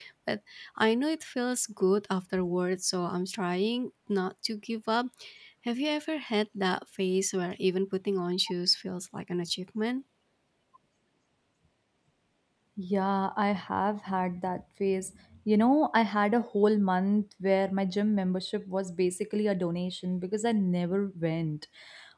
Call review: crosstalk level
none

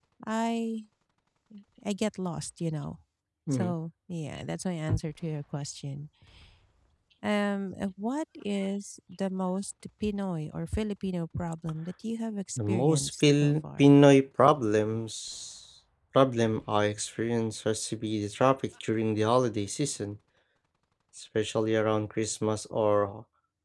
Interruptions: present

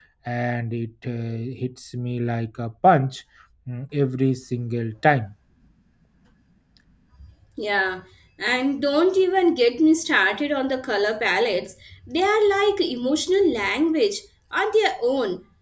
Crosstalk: none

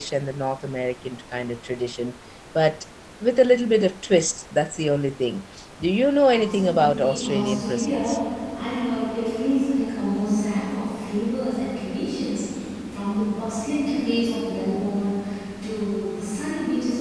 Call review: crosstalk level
present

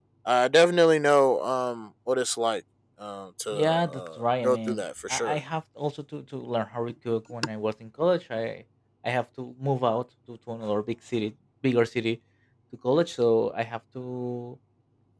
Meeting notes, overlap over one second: present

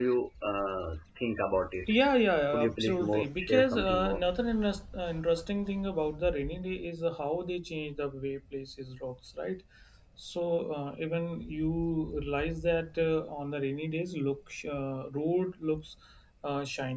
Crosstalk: present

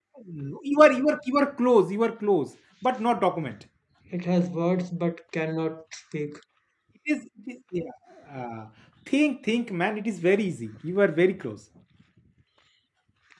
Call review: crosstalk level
none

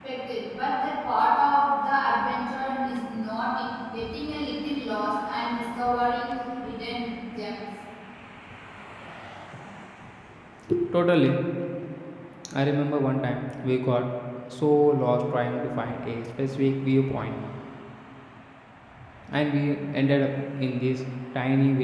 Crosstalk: none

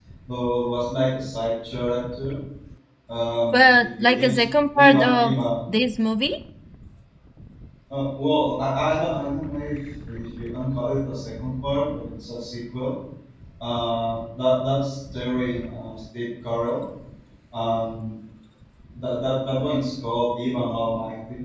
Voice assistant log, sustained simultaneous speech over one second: present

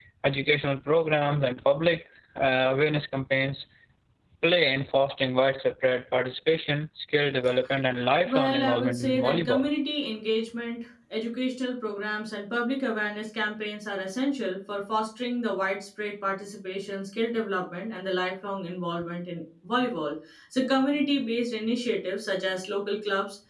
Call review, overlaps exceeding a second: present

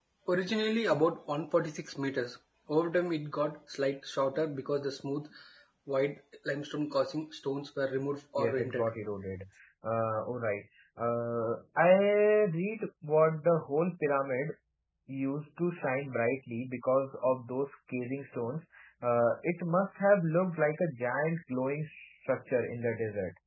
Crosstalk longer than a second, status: none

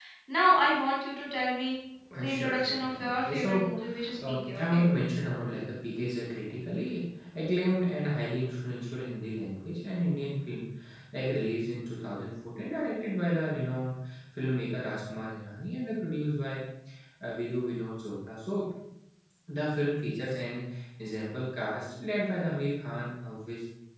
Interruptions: present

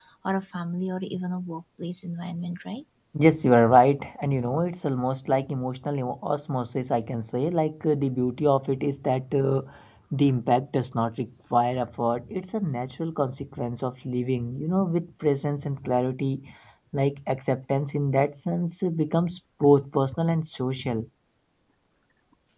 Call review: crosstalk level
none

